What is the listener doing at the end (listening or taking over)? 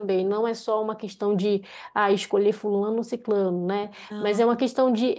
listening